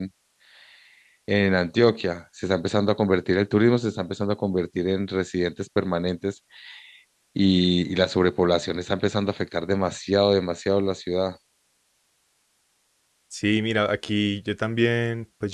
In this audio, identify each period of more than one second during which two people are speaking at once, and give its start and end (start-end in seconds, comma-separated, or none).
none